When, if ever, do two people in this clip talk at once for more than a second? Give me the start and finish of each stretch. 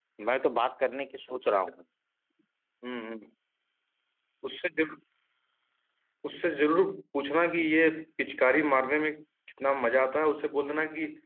none

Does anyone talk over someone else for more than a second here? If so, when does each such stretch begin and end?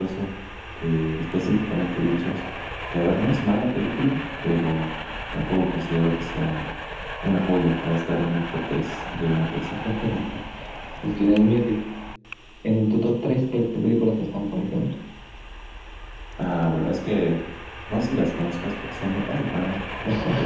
none

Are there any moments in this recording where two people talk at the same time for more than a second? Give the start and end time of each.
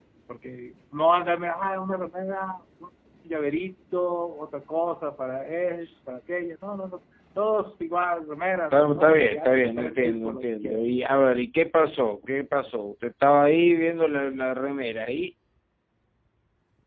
8.7-10.8

